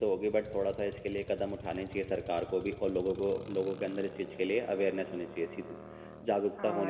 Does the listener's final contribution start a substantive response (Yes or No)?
Yes